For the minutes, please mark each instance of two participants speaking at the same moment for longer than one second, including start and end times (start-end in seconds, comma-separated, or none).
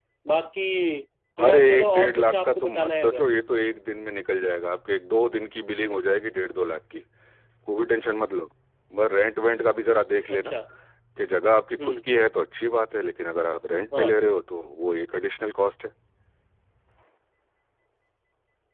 1.5-3.2